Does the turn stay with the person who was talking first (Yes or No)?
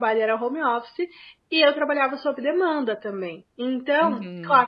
Yes